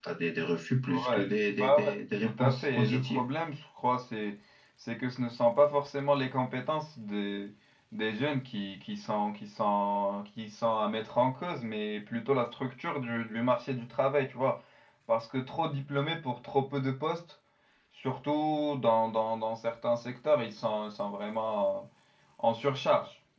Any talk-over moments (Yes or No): Yes